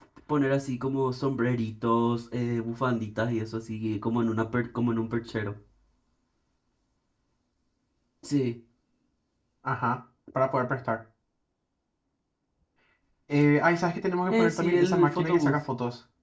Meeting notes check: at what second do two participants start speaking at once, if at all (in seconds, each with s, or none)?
14.3 s